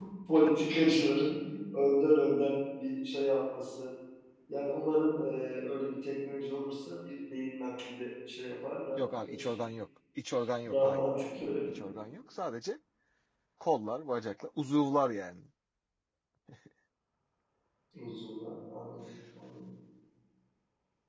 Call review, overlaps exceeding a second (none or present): none